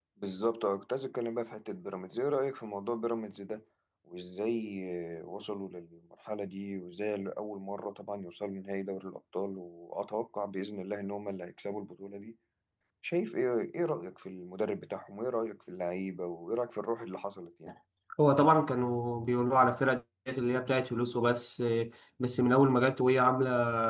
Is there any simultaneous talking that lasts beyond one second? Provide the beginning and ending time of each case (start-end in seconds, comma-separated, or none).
none